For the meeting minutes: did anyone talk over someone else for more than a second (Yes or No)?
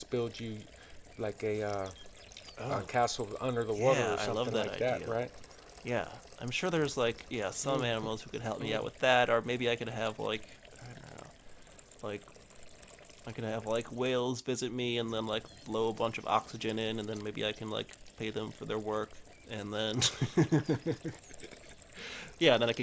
Yes